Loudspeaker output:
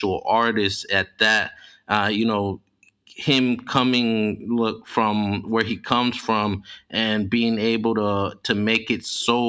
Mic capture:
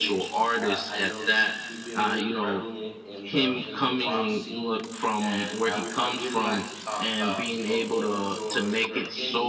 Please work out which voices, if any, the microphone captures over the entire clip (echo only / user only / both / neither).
both